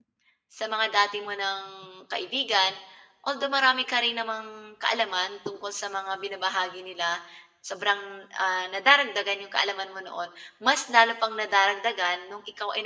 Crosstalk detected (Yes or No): No